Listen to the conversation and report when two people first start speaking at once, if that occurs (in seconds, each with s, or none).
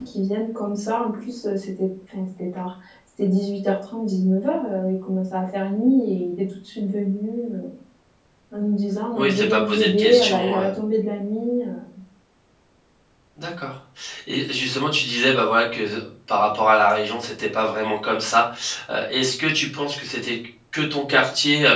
9.1 s